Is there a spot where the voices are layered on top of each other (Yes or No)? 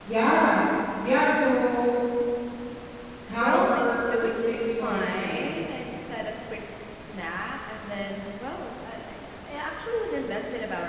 Yes